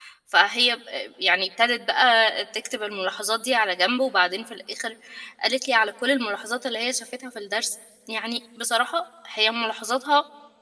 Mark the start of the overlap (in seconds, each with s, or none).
none